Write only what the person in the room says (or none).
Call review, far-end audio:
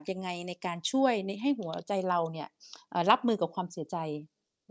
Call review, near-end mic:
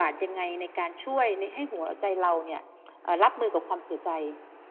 none